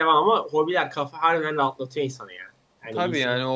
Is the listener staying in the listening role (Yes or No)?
No